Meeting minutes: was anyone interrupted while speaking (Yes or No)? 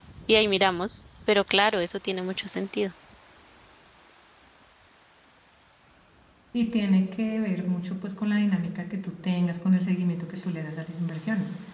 No